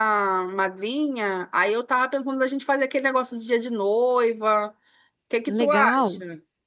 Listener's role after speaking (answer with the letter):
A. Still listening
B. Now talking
B